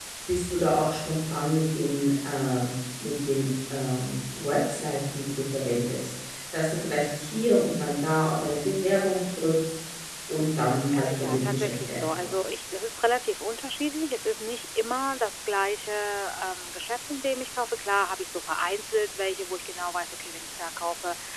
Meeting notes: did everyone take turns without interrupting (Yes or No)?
No